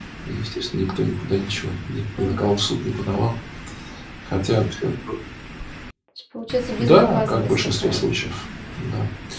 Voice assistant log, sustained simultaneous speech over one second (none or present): present